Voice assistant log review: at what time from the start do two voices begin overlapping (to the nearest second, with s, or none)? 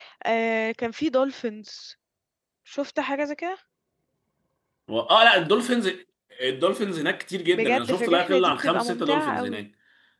8 s